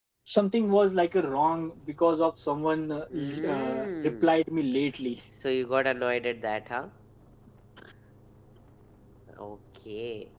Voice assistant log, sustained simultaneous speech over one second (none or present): present